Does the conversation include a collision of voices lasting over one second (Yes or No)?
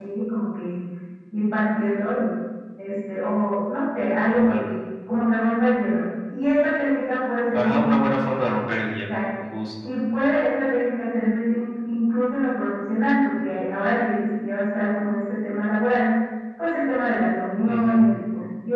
No